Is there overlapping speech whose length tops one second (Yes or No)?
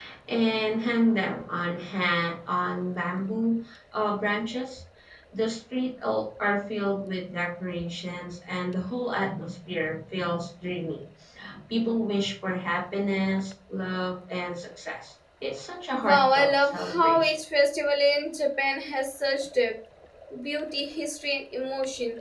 Yes